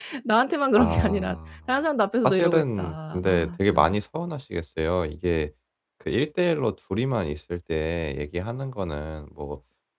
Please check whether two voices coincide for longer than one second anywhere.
Yes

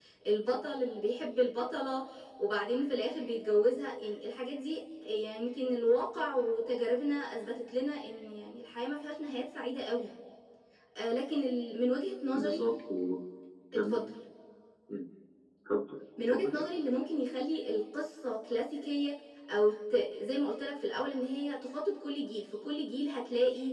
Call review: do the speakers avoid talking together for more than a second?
Yes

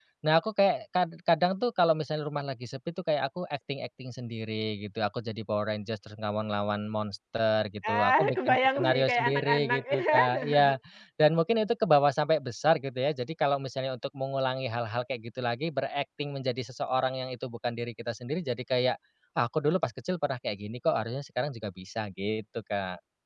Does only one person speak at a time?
No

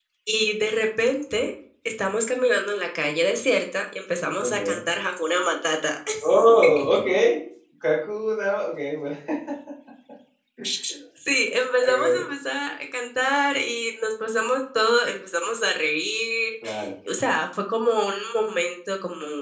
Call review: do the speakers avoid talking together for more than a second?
Yes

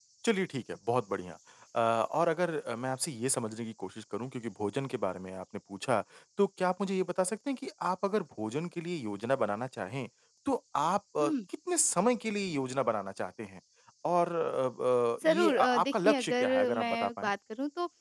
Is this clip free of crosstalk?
No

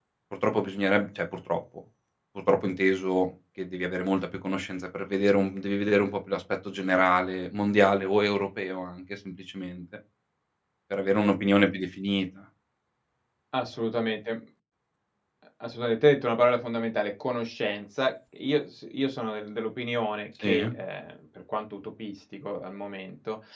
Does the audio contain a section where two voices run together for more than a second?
No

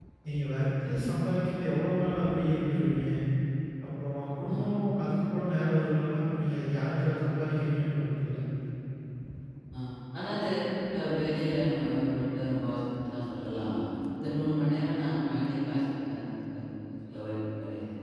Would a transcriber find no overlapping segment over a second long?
Yes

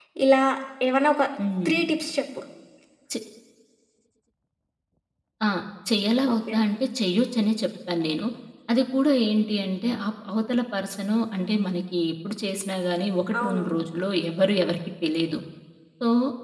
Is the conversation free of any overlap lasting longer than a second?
Yes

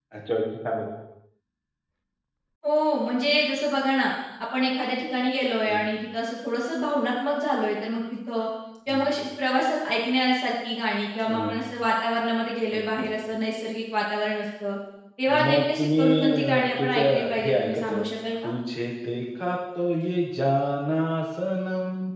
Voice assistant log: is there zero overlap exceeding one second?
No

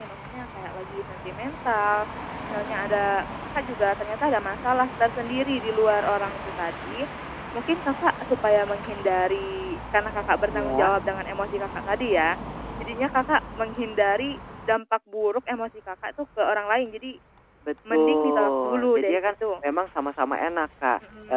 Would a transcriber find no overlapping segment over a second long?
No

